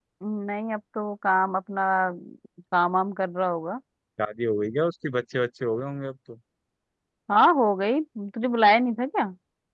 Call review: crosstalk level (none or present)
none